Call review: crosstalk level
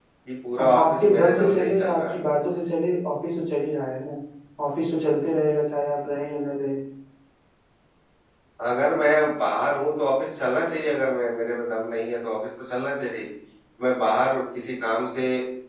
present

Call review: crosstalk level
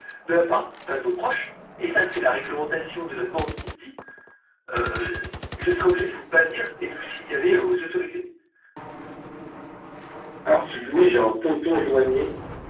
none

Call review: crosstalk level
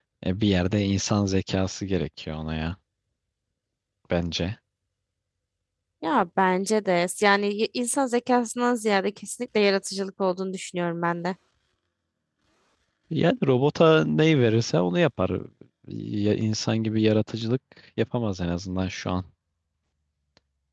none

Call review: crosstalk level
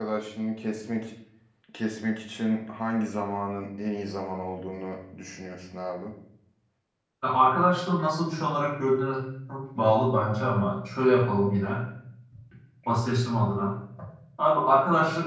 none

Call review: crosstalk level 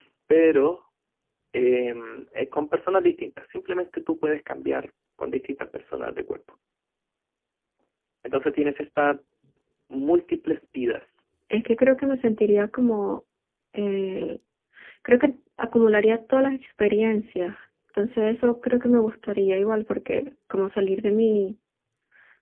none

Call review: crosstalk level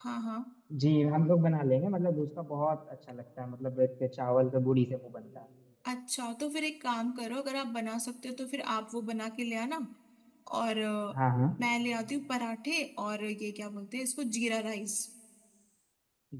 none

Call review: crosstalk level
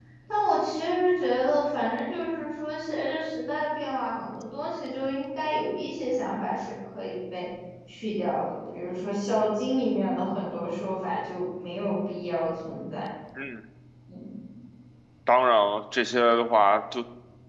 none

